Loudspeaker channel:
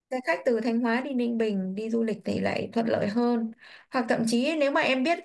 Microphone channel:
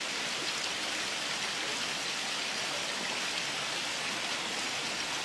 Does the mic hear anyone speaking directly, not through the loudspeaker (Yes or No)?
No